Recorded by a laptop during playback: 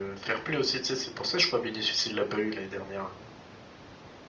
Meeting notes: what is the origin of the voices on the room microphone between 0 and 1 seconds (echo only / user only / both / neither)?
echo only